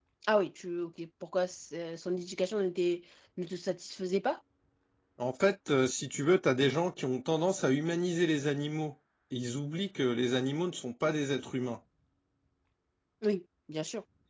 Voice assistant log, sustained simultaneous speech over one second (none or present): none